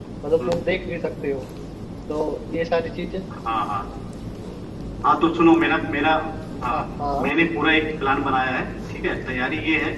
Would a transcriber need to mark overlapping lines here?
No

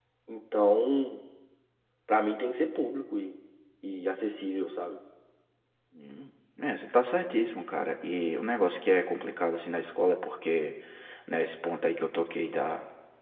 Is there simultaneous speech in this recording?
No

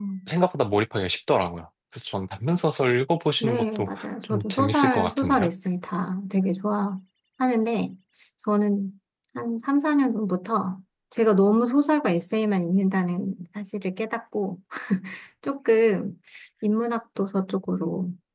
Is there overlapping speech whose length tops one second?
Yes, from 3.4 s

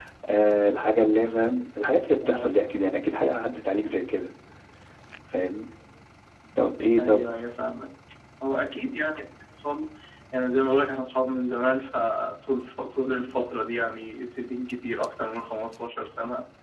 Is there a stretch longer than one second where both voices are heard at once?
No

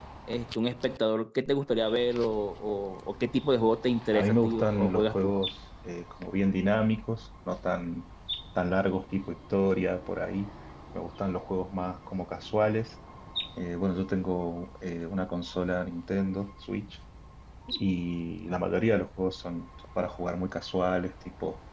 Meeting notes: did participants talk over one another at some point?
Yes, from 4.1 s

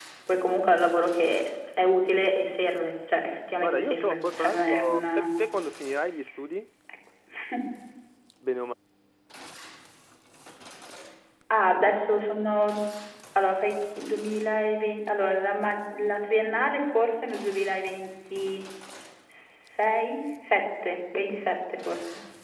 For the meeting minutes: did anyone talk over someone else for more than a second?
Yes, from 3.6 s

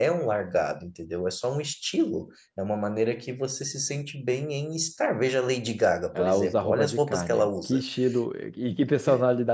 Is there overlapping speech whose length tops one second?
Yes, from 6.1 s

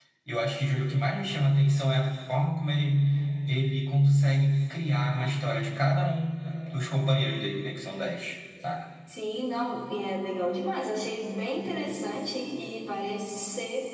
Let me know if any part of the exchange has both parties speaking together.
No

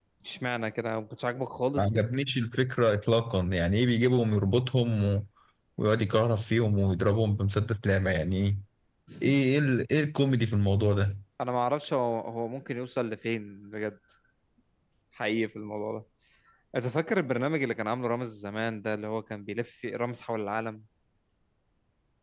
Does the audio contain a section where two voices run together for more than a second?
No

